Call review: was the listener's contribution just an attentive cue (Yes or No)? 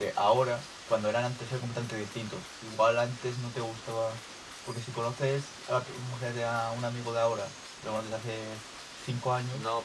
No